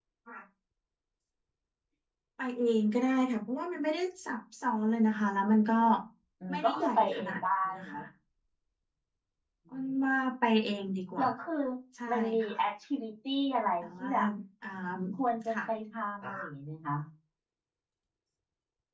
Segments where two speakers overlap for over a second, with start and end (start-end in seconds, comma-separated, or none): 6.5-8.0